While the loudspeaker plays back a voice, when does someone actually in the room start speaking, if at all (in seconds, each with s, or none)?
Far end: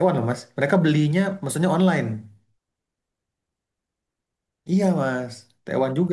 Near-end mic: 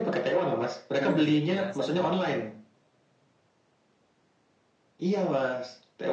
1.0 s